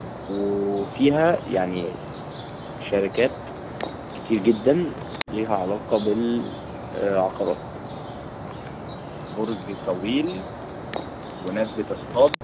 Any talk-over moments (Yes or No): No